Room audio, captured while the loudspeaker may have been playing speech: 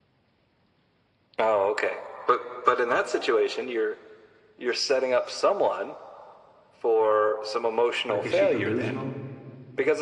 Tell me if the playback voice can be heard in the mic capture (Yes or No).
Yes